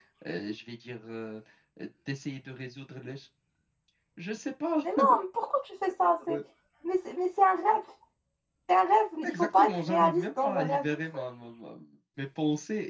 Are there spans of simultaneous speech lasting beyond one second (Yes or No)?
Yes